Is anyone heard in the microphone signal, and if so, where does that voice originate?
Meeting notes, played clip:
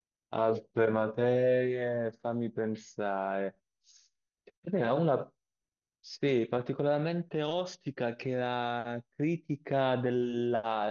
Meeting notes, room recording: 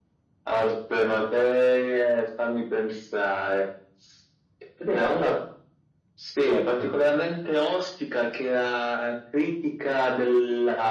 both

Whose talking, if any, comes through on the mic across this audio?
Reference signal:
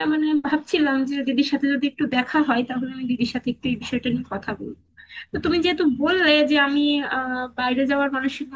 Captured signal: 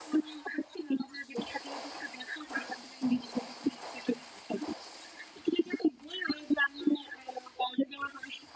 echo only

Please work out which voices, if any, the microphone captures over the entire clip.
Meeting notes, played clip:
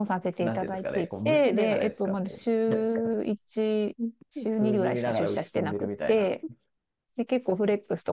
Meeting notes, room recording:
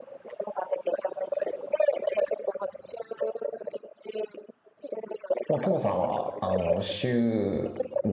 both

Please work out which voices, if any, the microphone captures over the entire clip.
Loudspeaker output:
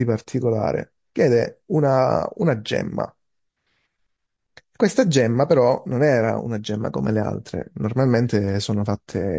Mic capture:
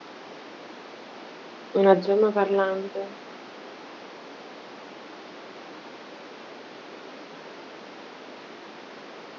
user only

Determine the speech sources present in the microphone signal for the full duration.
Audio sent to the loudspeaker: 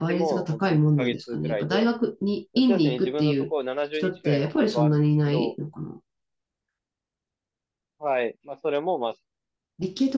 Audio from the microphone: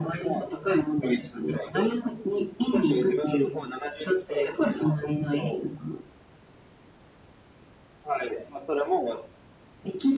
echo only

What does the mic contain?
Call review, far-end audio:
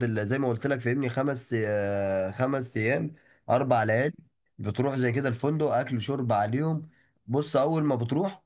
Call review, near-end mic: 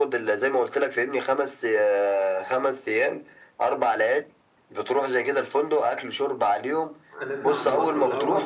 both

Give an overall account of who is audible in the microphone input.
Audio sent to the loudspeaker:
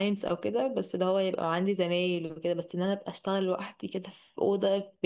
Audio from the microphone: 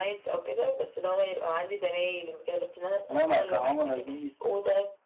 both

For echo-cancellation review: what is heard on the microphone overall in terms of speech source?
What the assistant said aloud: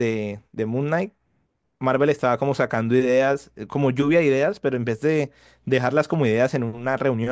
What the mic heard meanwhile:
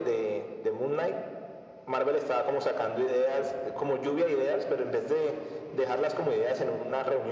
echo only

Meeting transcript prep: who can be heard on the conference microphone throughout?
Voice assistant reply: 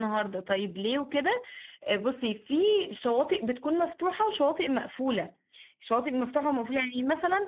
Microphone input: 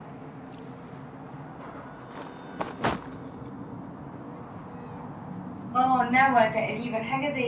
user only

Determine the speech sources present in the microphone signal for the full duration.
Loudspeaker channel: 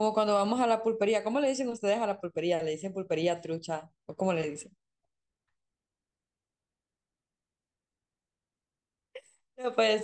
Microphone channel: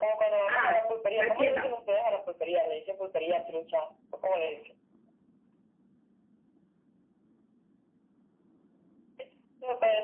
both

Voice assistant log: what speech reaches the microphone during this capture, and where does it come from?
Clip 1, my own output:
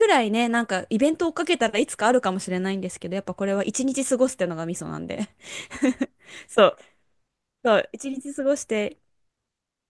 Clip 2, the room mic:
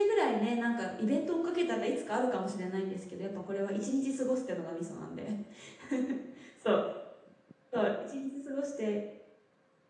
echo only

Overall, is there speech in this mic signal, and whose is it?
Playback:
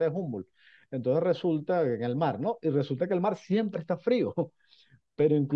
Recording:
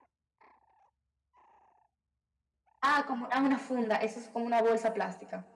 user only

